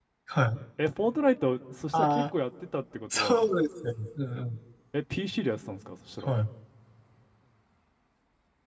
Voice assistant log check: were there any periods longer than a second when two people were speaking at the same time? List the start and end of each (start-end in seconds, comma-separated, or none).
none